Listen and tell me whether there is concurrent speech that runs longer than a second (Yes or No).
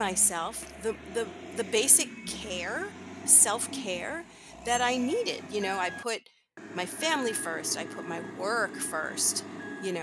No